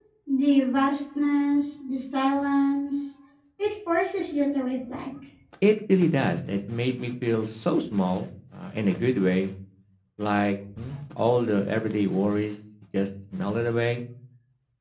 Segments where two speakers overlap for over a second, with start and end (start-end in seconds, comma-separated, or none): none